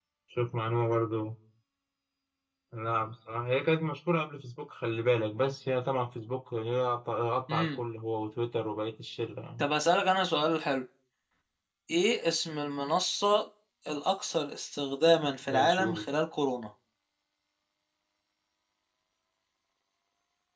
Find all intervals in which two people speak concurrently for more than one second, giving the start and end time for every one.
none

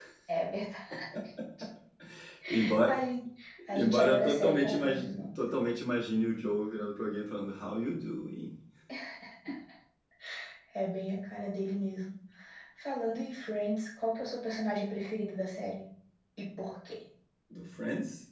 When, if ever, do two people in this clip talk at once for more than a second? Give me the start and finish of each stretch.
3.7-5.3

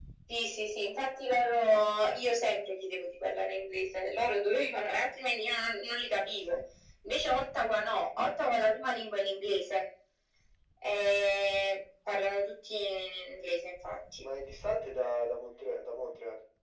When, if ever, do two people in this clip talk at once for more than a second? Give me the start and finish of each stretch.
none

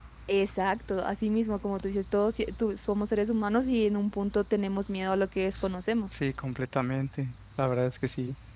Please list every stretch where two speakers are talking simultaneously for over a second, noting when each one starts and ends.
none

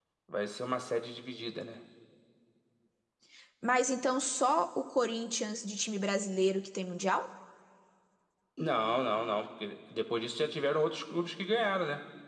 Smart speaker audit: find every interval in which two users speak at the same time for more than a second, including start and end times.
none

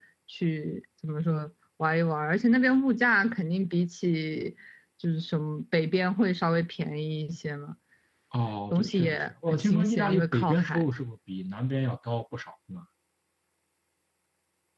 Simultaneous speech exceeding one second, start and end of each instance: 8.7-10.9

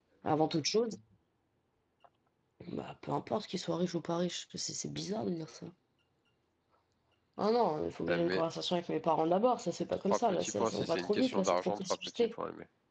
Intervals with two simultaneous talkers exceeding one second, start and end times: 9.9-12.3

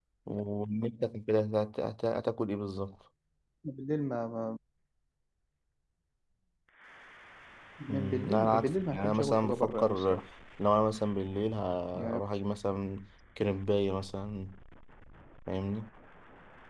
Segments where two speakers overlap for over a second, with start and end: 7.9-10.2

